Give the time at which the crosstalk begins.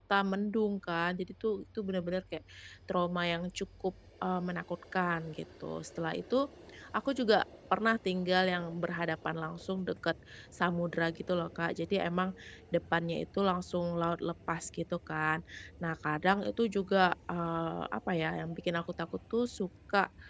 none

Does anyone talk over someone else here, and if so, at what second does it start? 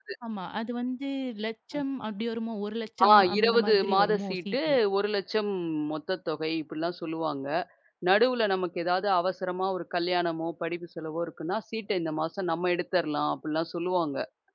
3.0 s

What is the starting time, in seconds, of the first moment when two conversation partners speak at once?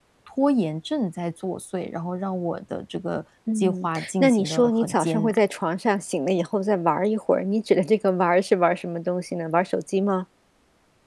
3.5 s

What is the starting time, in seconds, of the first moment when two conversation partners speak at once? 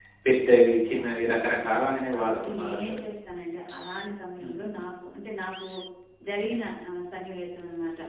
0.9 s

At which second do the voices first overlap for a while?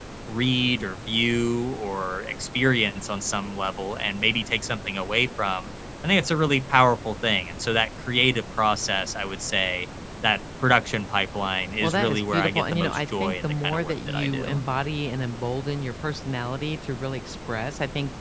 11.8 s

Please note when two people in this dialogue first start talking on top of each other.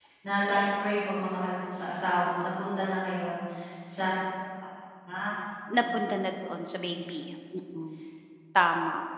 none

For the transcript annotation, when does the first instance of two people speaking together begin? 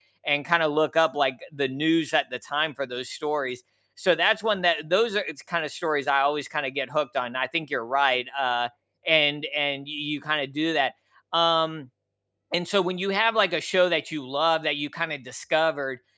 none

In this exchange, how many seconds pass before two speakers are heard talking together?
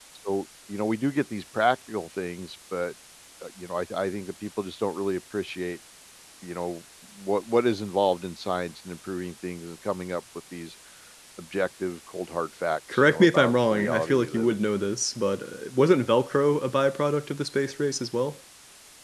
12.9 s

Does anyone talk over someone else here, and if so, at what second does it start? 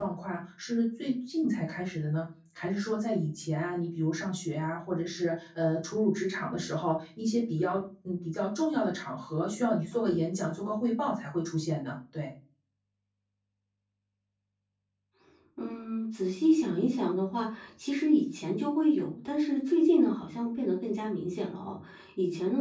none

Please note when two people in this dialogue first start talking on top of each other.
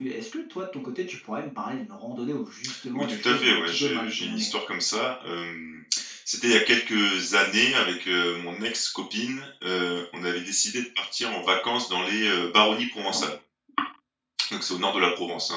2.9 s

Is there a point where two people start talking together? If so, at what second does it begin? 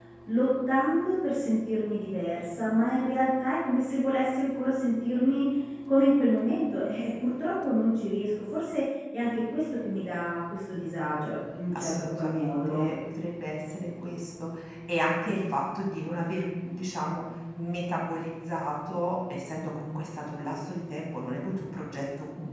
11.7 s

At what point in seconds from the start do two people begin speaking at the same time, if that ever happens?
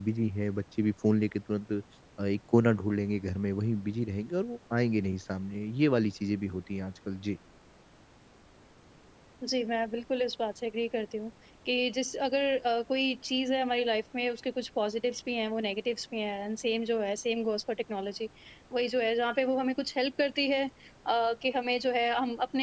none

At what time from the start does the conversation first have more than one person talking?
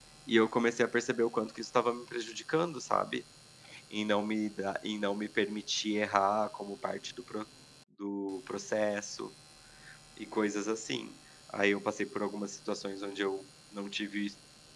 none

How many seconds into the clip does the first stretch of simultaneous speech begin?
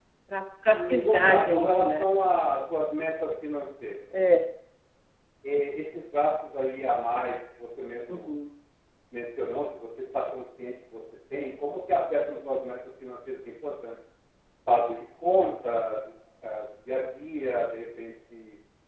0.7 s

